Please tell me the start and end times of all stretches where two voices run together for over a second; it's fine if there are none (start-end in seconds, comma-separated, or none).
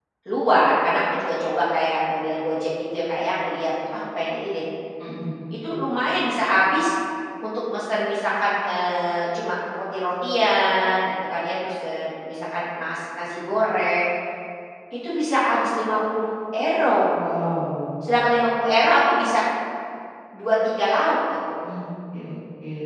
none